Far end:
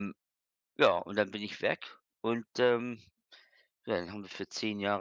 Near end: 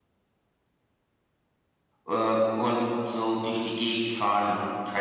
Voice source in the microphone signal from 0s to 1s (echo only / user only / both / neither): neither